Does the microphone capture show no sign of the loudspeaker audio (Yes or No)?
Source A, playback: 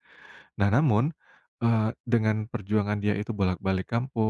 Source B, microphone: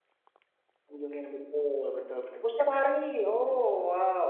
Yes